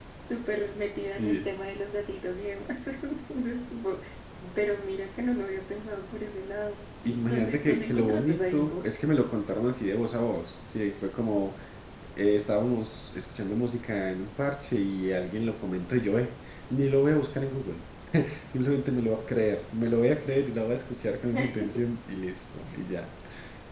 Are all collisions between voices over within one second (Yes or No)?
No